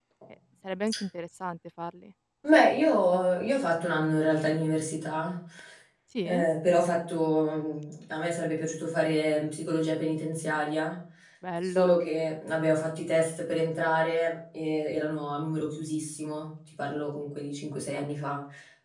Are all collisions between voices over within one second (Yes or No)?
Yes